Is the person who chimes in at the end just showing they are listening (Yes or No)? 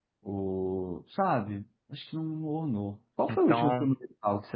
Yes